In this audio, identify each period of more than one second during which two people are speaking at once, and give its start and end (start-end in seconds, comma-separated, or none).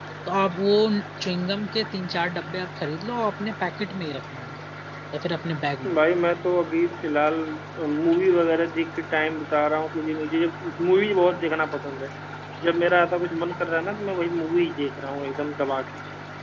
none